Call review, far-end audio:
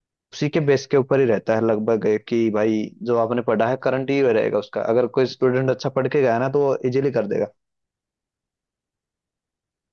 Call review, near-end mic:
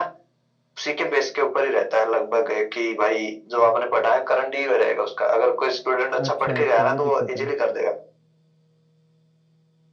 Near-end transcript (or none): अच्छा अच्छा ये दिक्कत है